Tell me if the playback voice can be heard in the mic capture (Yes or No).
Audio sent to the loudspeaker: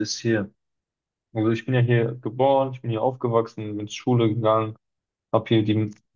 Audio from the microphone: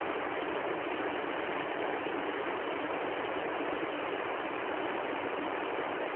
No